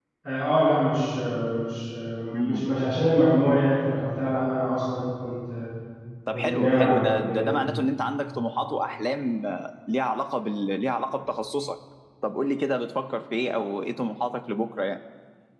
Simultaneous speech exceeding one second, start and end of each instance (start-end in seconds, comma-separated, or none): 6.3-7.5